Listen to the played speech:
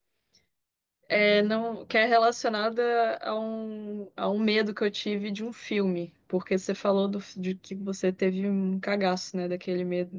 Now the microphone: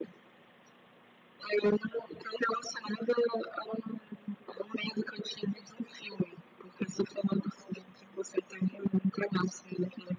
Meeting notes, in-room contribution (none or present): none